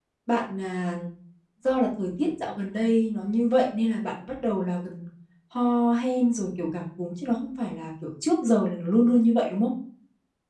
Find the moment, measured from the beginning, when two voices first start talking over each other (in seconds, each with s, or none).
none